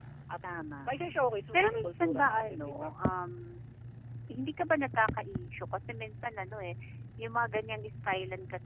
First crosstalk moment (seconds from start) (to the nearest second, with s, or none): 2 s